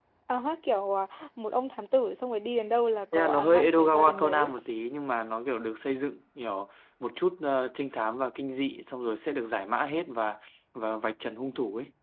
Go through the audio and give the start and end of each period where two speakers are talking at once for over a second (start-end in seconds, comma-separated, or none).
3.1-4.5